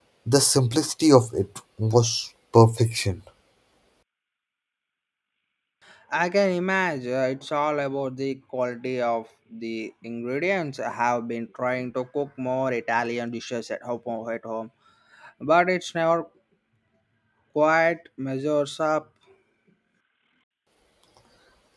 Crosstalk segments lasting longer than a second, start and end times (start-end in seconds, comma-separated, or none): none